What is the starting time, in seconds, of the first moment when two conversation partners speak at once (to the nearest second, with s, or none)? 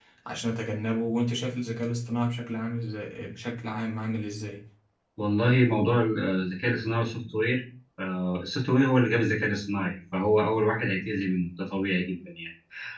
none